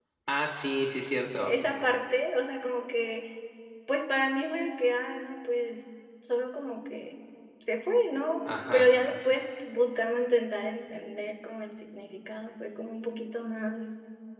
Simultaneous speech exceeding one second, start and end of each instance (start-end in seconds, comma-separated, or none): none